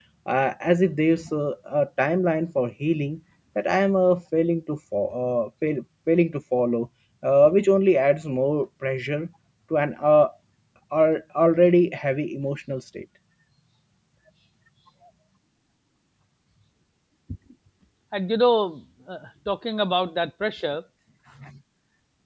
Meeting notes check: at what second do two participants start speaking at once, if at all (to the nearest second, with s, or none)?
none